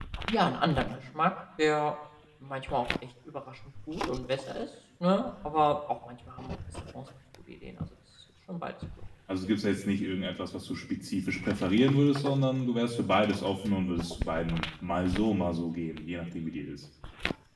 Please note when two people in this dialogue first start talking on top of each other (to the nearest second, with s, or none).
none